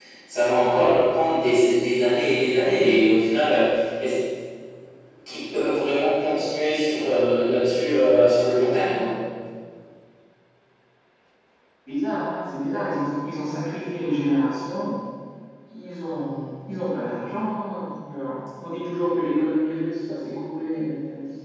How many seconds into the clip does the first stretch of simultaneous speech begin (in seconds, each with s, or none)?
none